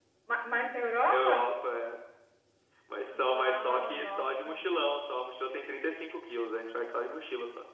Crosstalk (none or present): present